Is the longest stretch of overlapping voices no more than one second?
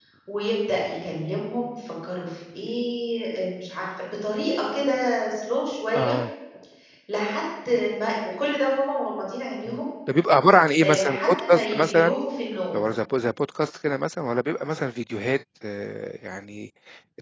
No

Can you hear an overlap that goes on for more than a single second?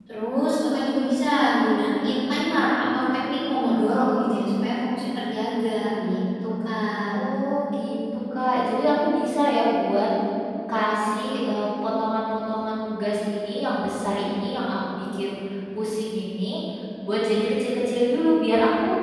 No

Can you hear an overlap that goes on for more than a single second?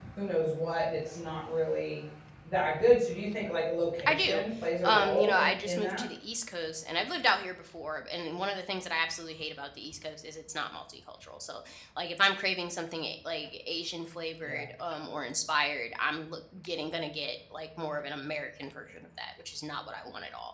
Yes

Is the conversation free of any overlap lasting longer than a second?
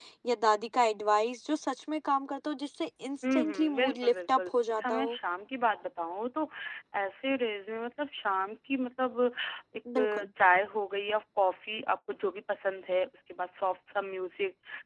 No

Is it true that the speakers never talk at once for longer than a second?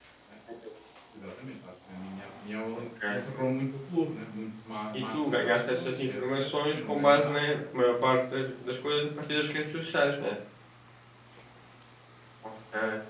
No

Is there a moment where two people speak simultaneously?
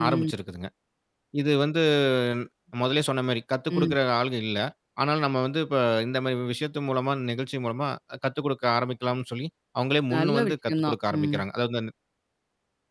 Yes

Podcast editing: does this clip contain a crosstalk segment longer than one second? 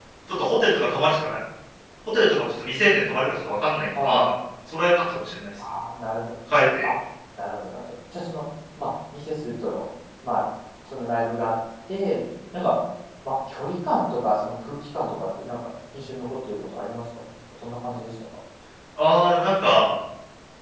No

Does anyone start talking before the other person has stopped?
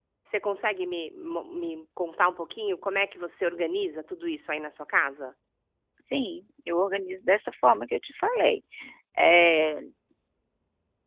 No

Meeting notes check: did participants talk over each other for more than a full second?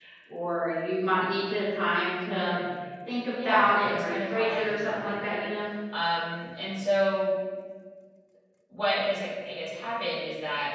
Yes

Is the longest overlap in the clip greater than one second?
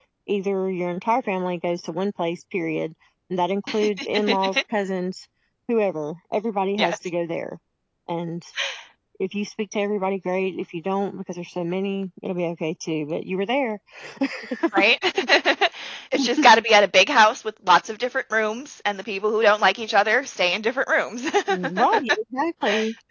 No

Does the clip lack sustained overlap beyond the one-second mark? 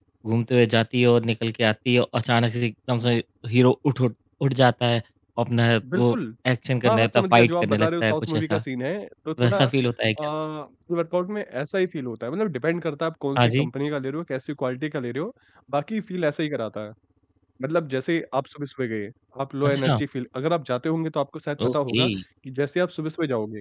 No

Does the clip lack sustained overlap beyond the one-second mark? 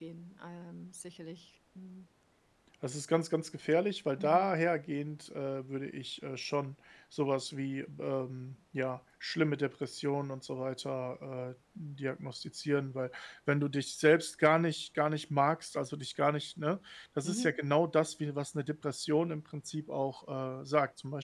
Yes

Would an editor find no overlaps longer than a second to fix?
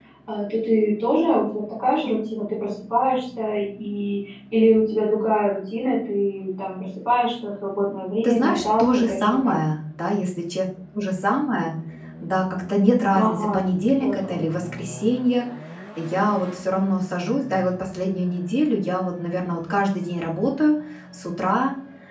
No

